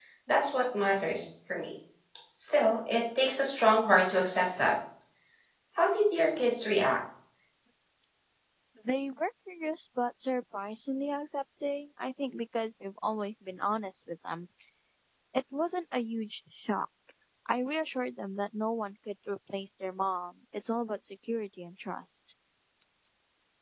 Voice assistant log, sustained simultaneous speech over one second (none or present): none